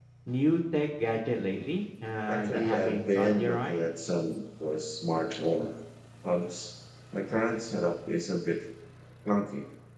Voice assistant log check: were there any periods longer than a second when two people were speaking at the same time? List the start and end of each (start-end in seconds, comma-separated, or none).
2.3-3.8